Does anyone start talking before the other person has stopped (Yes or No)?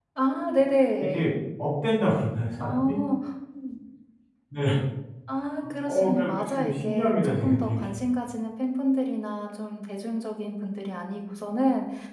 Yes